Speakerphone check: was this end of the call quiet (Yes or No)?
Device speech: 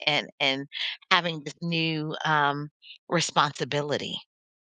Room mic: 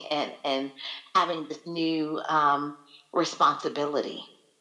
Yes